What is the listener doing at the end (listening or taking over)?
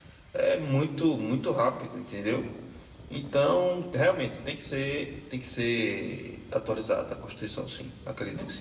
taking over